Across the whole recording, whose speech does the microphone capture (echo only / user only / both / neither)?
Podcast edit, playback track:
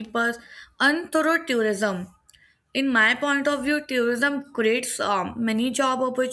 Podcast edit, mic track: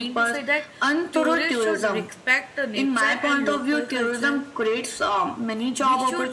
both